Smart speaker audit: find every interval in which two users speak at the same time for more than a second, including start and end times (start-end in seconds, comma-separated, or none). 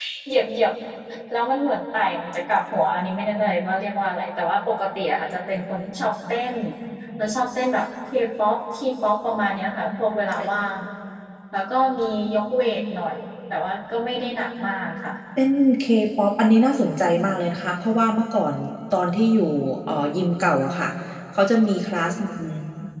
none